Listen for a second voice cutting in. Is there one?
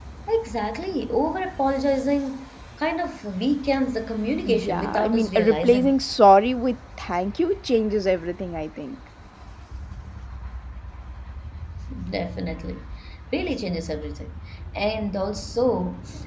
Yes, from 4.5 s

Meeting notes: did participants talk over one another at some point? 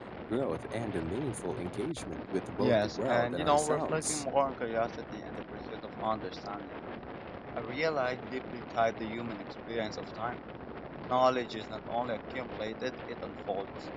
Yes, from 2.6 s

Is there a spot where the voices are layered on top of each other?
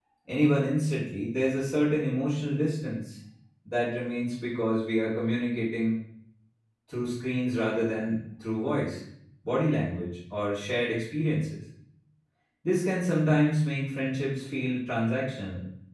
No

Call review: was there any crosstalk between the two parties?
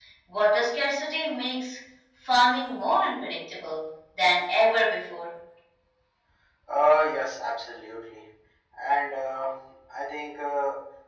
No

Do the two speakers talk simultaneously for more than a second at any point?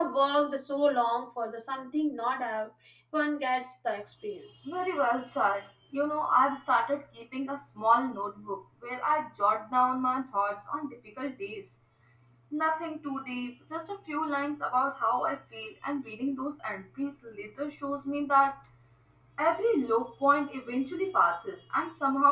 No

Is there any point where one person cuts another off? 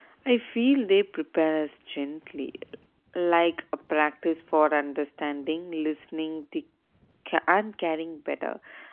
No

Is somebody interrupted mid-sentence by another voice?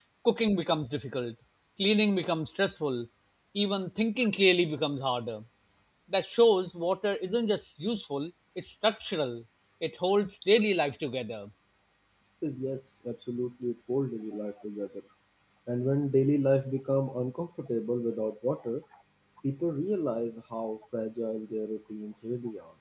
No

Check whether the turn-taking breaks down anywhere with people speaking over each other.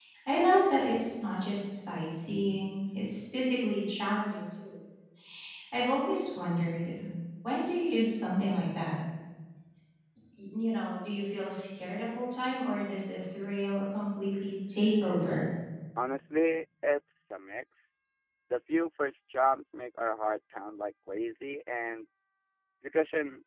No

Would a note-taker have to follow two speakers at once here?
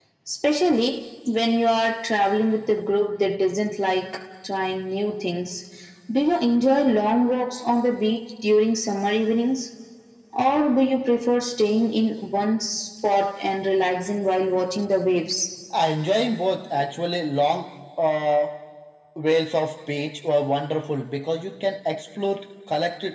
No

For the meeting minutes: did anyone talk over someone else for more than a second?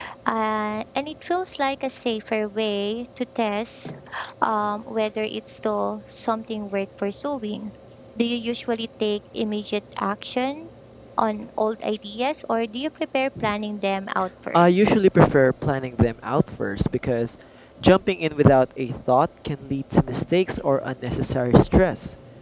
No

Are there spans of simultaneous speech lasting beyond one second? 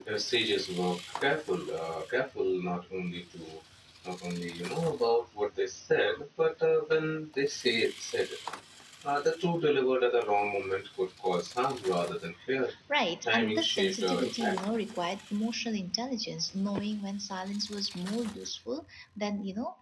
Yes, from 13.2 s

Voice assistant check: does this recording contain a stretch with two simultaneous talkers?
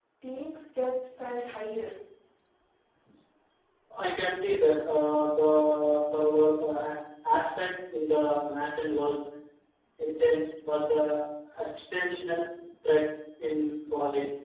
No

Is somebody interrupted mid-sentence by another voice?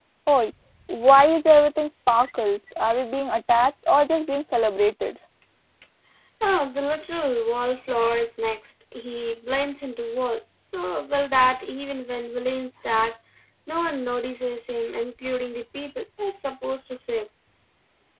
No

